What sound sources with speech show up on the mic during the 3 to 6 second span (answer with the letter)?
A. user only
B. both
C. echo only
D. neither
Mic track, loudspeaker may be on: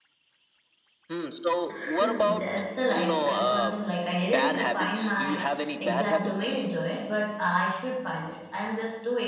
B